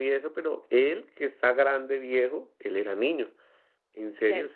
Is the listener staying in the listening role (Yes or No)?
Yes